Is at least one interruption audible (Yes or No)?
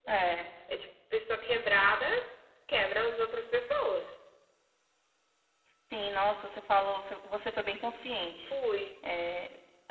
No